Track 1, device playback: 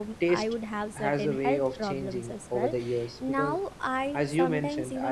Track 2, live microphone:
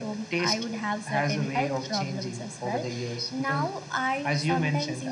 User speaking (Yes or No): No